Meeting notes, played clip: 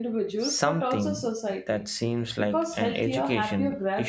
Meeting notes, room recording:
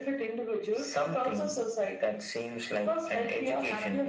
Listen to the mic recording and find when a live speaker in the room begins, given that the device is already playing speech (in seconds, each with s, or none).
none